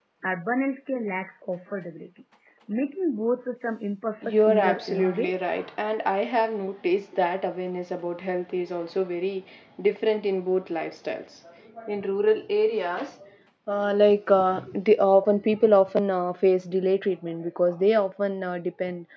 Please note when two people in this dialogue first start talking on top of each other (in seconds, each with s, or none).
4.2 s